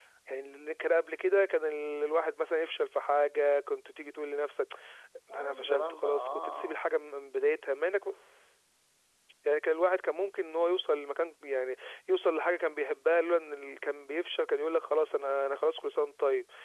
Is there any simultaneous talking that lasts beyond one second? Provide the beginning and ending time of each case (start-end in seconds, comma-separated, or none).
5.3-6.8